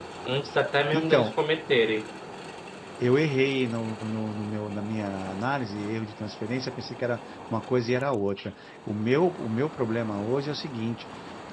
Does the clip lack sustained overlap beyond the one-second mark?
Yes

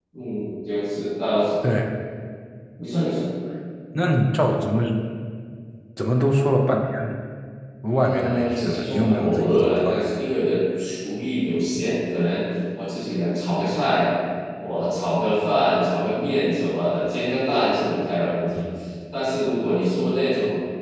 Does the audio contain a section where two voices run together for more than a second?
Yes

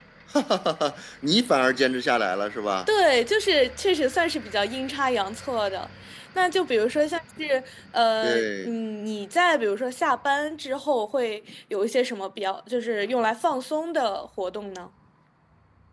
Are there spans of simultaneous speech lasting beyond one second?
No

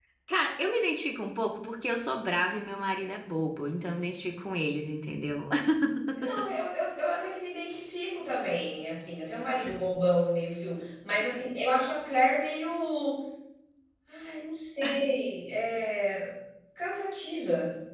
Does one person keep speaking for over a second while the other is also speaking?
No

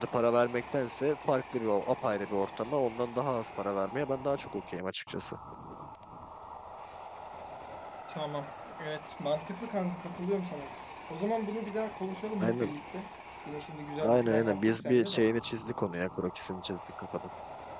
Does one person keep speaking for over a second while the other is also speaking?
Yes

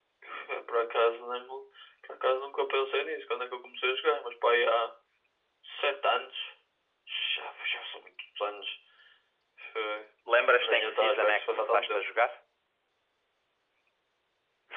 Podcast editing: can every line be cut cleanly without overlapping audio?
No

